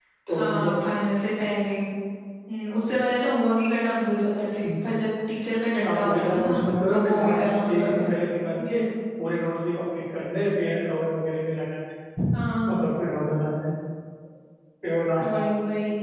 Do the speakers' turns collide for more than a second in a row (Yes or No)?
Yes